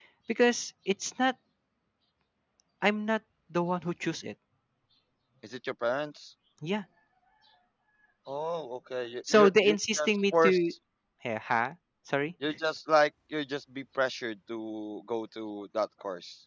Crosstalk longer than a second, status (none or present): present